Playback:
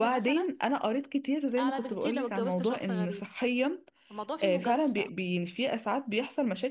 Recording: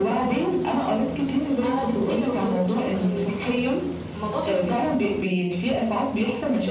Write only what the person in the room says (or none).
none